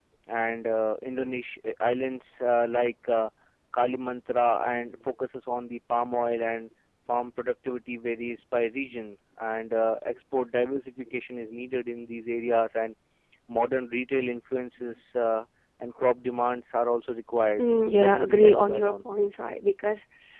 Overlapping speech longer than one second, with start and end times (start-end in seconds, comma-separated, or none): 17.6-18.9